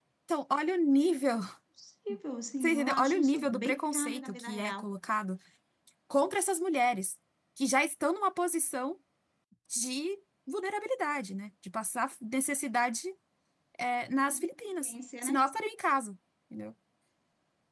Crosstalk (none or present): present